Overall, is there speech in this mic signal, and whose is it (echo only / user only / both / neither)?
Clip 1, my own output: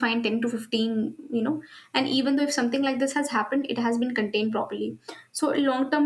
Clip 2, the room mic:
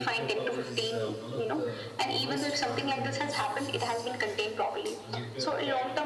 both